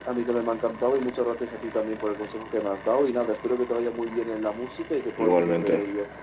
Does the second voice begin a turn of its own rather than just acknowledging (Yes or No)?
Yes